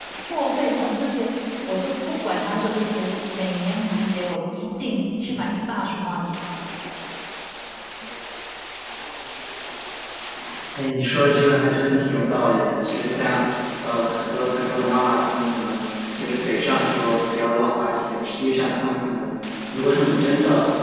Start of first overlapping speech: none

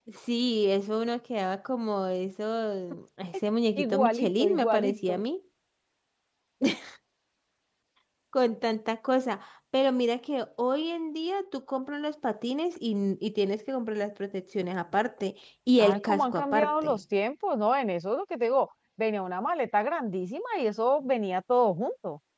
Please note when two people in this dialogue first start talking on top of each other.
4 s

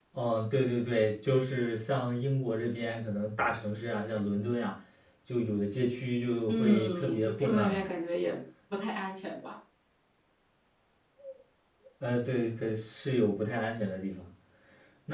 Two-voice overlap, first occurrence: 6 s

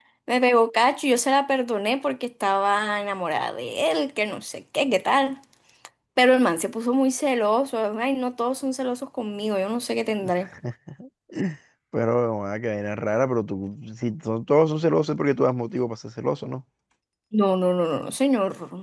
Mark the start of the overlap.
none

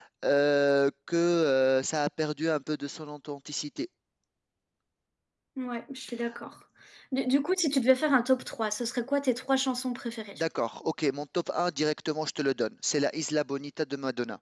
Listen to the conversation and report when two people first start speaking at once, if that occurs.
none

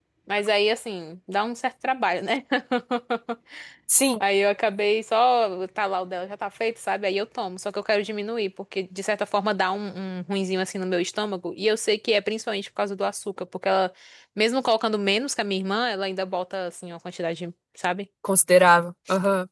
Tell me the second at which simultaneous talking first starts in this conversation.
none

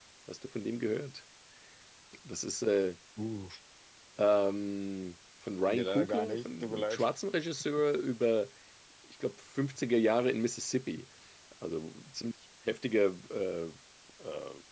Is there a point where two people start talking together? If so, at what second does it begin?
6 s

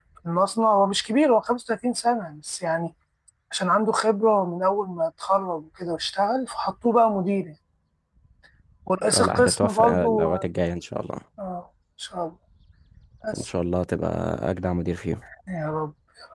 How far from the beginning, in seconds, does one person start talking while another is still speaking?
9 s

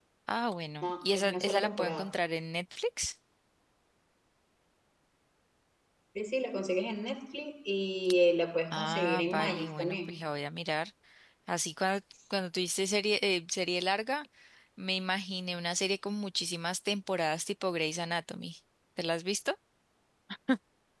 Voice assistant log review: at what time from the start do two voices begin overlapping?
1 s

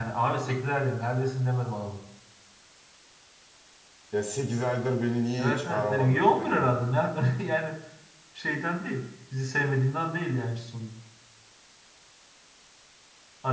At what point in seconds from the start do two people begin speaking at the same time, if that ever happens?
5 s

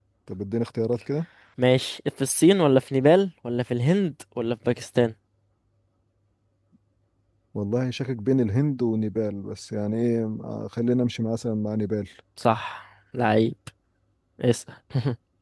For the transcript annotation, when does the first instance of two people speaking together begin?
none

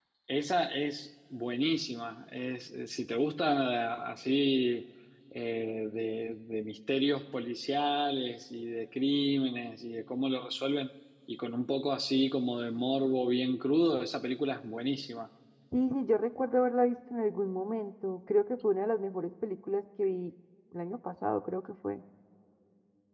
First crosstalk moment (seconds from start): none

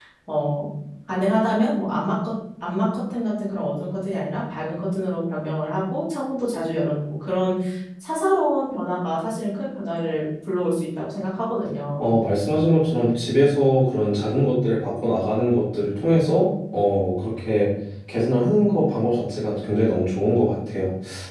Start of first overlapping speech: none

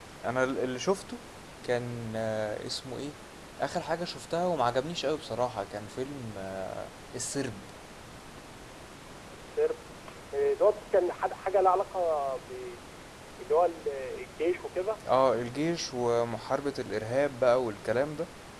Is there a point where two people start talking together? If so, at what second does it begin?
none

